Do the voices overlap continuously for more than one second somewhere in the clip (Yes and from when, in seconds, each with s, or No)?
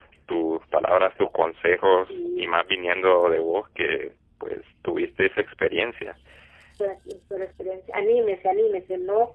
No